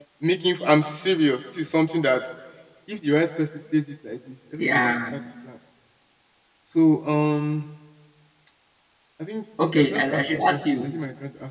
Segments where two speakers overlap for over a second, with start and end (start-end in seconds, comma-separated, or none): 9.6-10.9